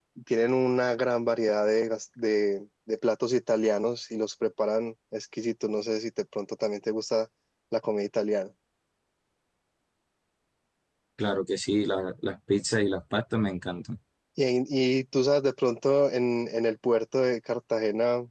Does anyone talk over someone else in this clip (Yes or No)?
No